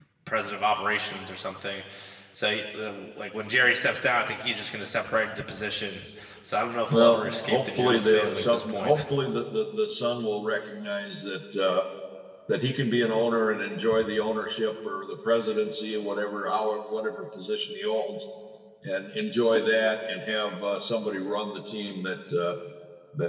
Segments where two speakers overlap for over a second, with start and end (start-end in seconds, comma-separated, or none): 6.9-9.0